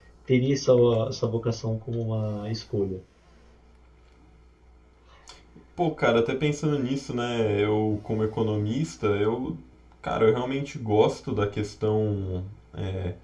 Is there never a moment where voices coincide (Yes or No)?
Yes